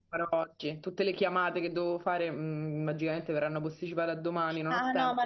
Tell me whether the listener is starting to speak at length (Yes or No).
Yes